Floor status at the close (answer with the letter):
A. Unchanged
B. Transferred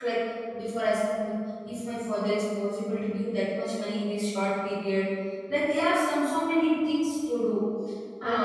B